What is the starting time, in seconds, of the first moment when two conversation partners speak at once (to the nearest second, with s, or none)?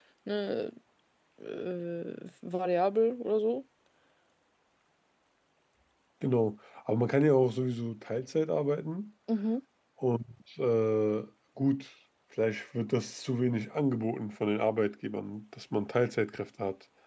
none